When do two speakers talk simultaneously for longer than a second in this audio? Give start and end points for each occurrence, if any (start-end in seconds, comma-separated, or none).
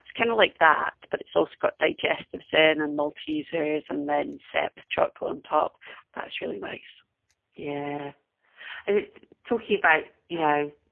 none